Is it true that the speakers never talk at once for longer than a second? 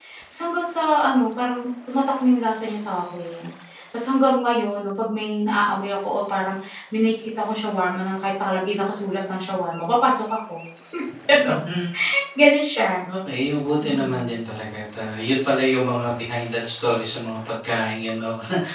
Yes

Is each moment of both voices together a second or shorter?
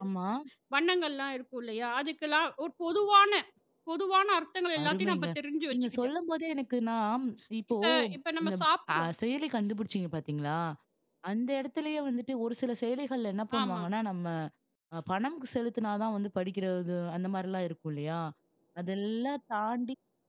Yes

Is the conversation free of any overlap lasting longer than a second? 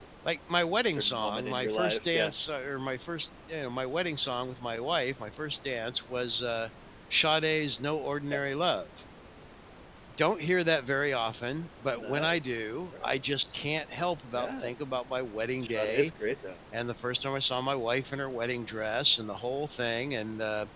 No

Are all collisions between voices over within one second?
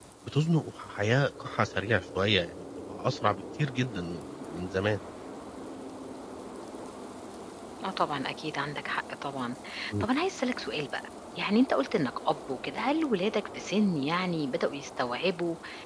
Yes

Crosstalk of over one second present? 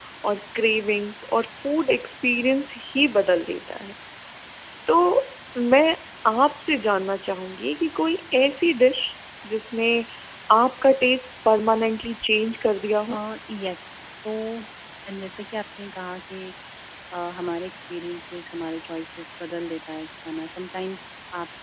No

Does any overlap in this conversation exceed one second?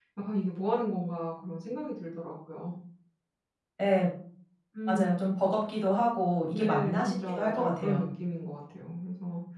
Yes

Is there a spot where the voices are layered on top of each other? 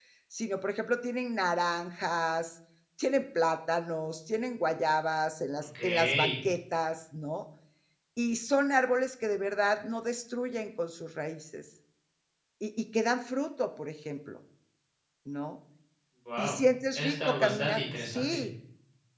Yes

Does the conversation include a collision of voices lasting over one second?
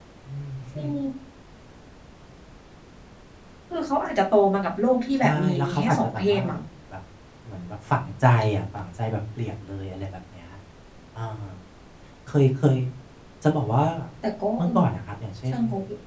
Yes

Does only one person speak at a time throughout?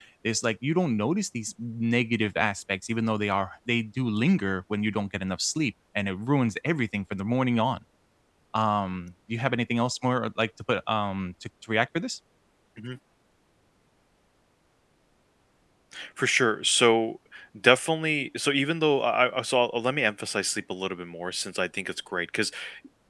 Yes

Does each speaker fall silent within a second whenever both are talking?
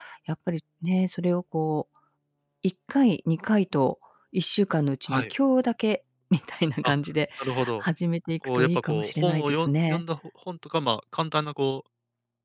No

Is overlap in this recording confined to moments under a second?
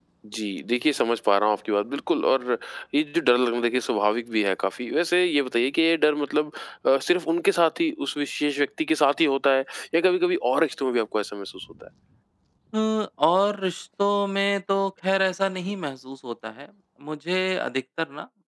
Yes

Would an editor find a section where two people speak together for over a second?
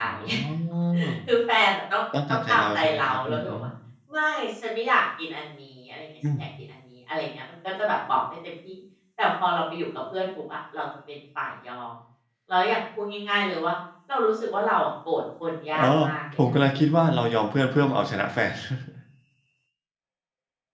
Yes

